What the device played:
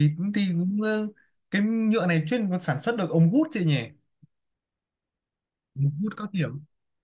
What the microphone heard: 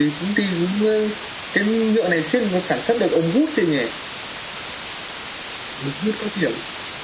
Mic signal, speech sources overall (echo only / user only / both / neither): echo only